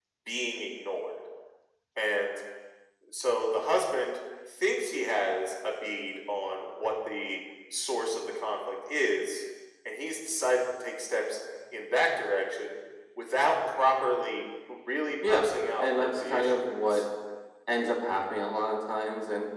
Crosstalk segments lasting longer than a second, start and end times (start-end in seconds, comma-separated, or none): 15.8-17.0